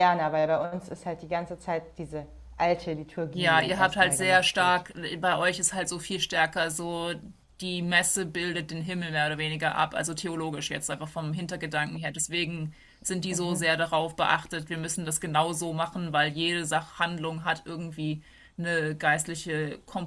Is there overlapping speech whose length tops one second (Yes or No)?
Yes